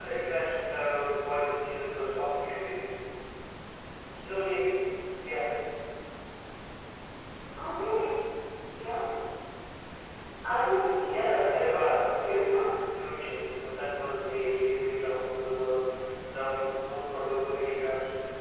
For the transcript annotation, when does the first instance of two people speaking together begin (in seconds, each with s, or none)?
11.1 s